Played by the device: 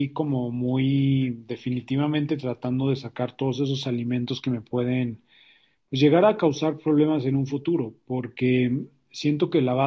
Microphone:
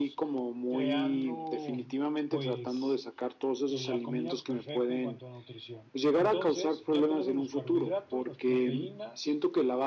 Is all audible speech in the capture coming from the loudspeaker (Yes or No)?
No